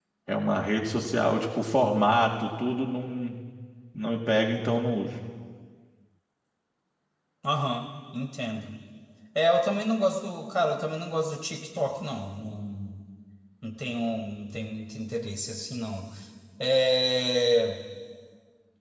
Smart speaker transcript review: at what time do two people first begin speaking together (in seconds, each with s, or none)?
none